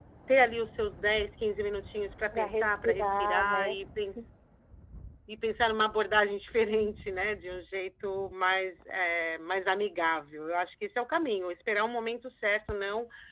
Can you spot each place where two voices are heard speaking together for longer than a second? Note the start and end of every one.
2.3-3.8

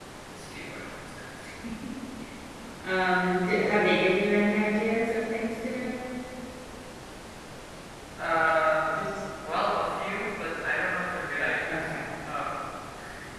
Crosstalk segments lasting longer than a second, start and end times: none

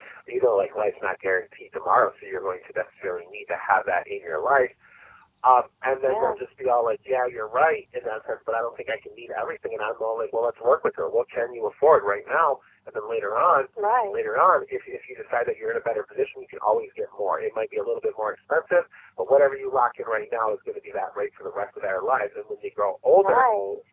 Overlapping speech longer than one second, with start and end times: none

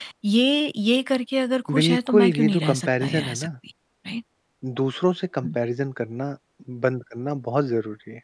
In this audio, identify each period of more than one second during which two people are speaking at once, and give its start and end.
1.8-3.5

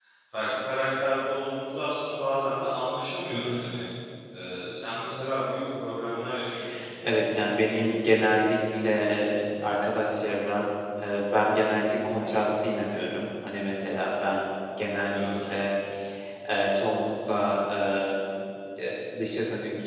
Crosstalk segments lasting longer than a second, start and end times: none

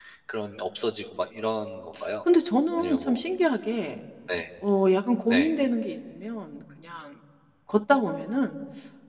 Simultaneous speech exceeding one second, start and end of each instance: none

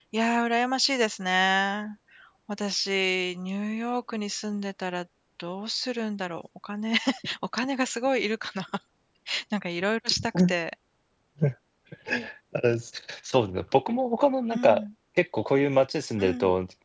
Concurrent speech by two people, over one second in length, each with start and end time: none

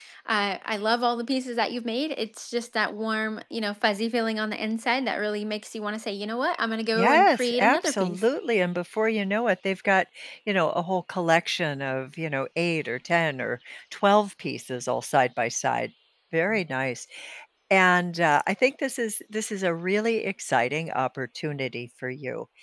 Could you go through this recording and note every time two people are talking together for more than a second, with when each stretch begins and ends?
7.0-8.2

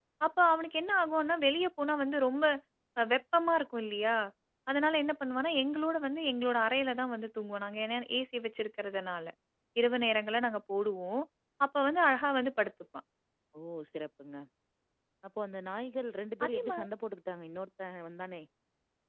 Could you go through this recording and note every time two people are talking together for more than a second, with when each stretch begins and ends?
none

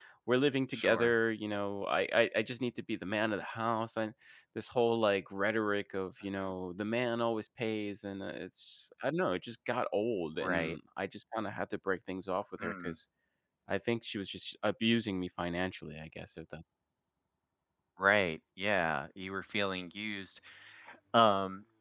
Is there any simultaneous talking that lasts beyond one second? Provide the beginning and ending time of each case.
none

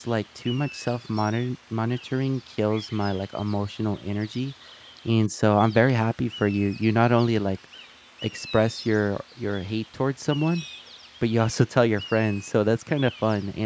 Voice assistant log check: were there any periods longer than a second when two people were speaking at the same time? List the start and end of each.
none

